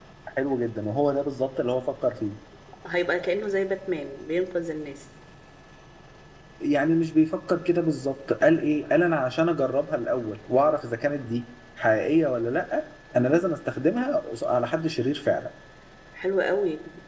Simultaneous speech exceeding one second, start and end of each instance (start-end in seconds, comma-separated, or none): none